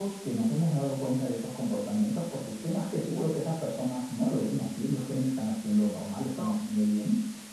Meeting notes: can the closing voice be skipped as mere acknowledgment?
Yes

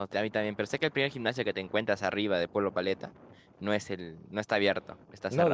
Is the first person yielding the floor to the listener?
Yes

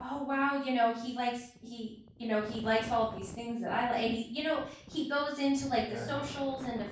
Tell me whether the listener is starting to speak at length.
No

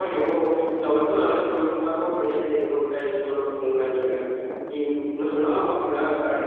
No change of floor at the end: Yes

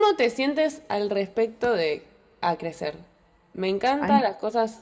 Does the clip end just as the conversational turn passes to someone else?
No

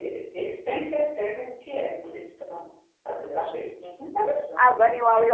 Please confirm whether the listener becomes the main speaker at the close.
Yes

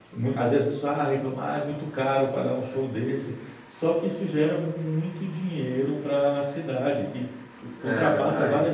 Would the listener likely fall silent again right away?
Yes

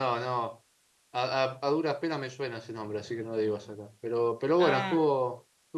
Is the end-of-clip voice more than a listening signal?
No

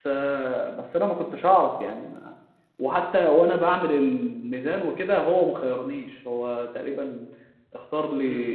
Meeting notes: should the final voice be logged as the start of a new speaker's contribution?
Yes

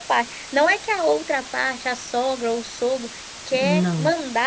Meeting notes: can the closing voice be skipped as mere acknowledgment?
Yes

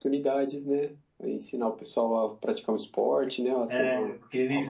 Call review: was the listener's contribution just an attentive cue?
No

